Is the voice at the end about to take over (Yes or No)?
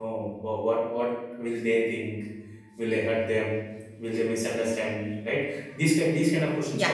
No